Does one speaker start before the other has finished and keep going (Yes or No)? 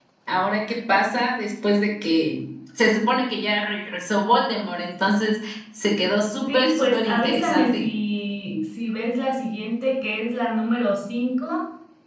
Yes